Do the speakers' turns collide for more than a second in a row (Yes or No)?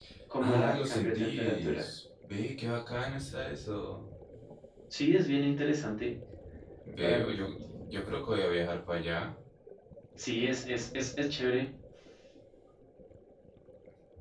Yes